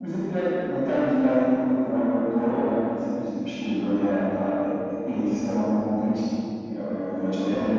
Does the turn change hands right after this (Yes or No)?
Yes